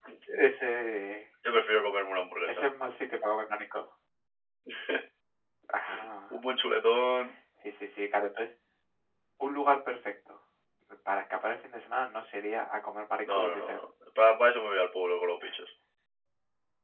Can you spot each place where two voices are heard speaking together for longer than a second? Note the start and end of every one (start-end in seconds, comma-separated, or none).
none